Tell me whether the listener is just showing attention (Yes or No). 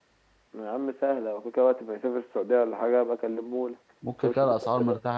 No